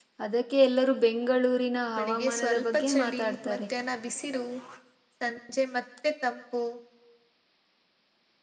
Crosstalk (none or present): present